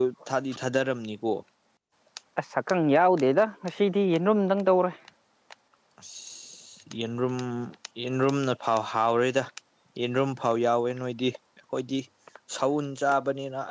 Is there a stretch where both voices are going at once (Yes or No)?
No